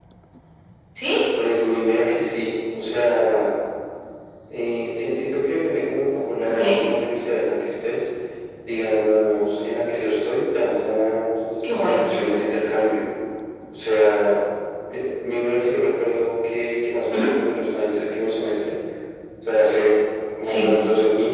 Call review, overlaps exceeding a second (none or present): none